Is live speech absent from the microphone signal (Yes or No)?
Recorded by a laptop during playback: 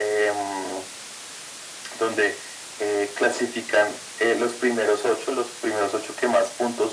Yes